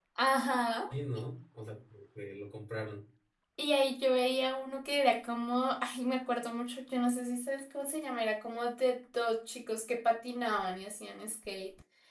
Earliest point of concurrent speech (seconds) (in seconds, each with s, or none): none